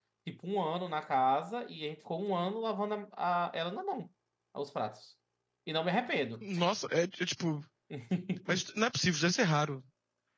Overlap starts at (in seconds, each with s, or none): none